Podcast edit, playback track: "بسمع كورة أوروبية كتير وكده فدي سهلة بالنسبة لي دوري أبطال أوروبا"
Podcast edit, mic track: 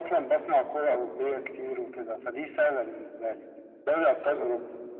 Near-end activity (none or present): none